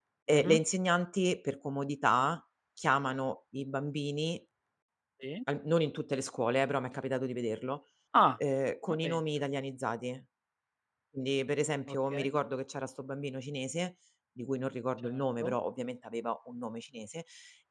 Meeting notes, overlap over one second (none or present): none